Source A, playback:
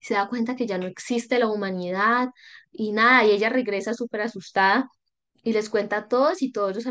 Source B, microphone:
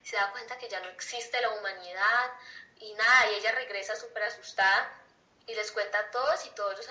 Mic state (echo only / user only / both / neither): echo only